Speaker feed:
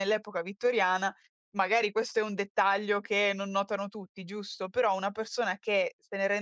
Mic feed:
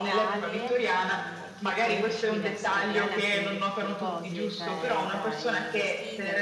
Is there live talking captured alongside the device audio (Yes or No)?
Yes